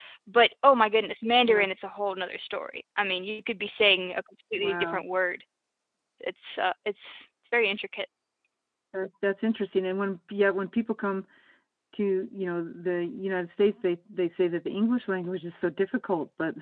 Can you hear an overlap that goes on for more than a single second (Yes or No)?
No